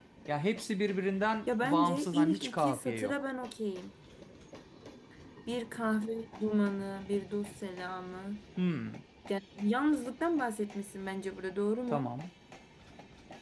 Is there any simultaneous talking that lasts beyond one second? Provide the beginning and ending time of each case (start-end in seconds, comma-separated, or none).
1.5-3.1